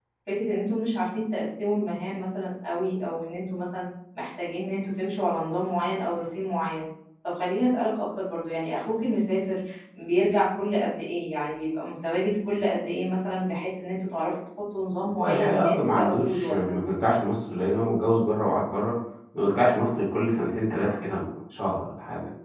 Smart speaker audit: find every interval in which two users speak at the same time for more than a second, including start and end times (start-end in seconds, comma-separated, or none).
15.2-16.8